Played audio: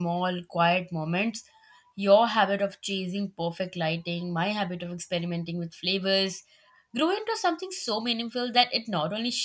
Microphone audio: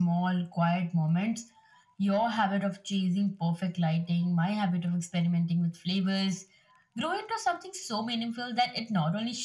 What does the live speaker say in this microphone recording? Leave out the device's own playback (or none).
none